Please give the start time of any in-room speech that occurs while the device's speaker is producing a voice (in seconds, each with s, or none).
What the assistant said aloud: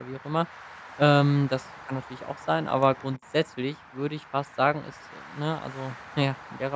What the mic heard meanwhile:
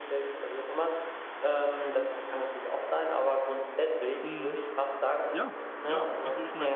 4.2 s